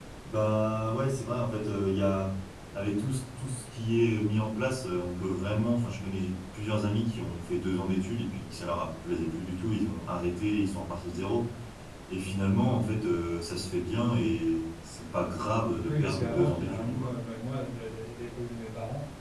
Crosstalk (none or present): present